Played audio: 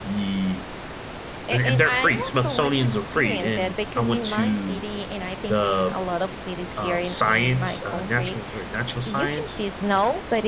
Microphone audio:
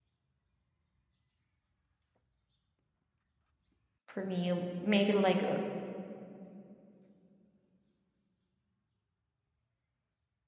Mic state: user only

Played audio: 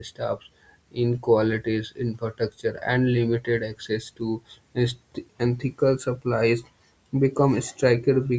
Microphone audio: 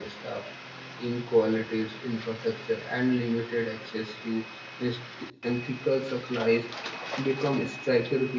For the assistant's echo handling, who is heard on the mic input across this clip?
echo only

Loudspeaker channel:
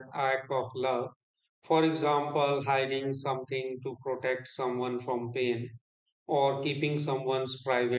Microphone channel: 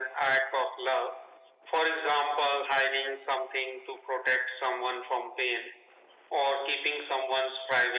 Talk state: echo only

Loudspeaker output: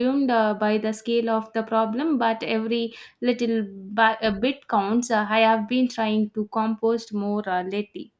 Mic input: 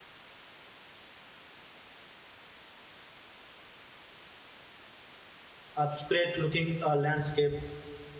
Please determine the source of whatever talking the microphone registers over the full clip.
user only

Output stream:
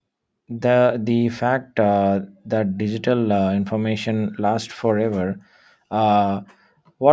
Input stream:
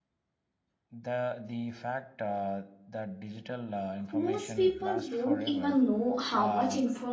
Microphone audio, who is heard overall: both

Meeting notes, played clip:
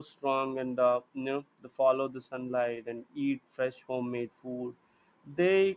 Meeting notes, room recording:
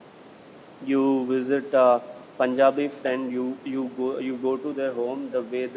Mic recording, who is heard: user only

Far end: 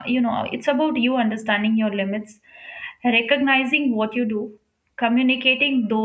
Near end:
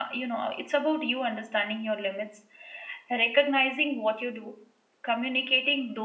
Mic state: echo only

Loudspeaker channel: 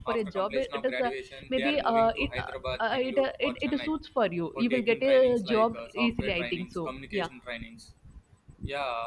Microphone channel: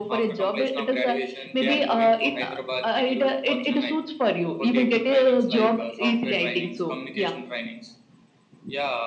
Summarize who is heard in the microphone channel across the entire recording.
echo only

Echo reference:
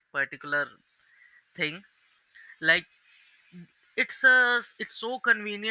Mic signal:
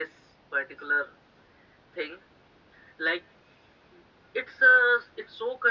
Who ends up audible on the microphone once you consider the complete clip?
echo only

